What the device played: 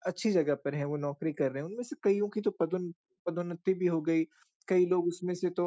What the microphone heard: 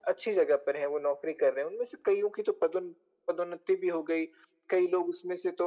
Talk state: echo only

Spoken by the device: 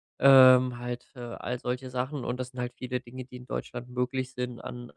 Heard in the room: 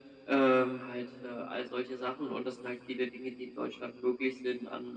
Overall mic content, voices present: echo only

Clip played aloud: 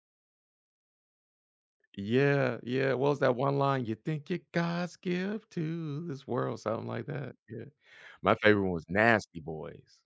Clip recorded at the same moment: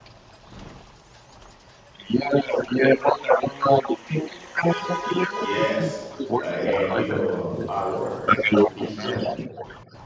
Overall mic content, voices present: both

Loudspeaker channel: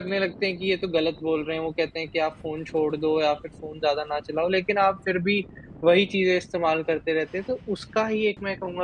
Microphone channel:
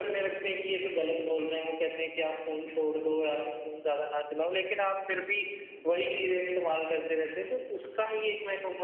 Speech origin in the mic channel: echo only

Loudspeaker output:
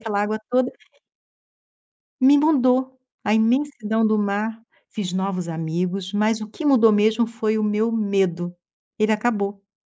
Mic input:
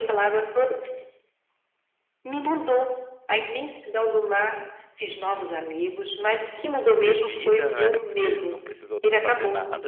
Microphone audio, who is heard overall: both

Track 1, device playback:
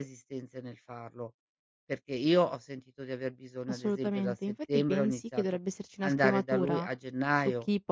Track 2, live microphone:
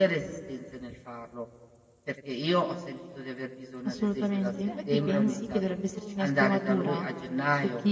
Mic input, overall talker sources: both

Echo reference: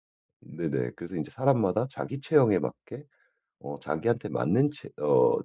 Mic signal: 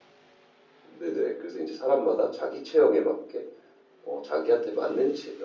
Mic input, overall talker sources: echo only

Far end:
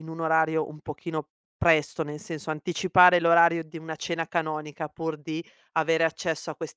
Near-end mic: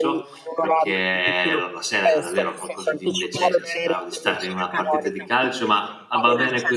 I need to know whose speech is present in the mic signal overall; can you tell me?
both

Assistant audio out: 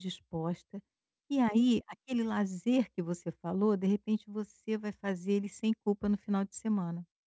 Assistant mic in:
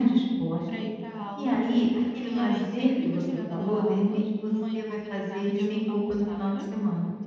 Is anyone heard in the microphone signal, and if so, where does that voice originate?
both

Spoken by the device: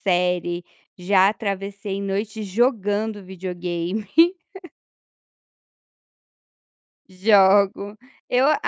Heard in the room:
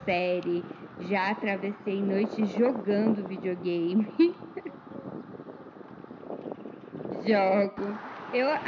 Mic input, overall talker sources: echo only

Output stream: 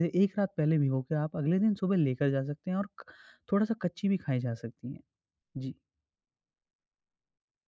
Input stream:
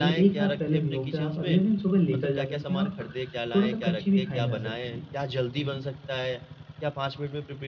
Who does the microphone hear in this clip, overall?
both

